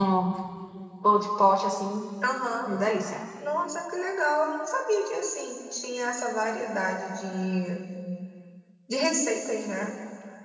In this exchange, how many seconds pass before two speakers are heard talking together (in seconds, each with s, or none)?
none